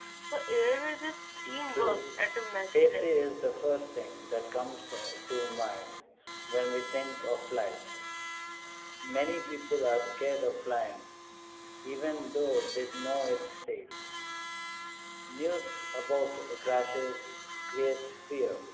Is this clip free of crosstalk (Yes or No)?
No